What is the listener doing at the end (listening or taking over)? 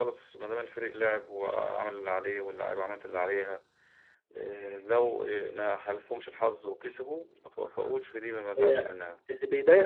taking over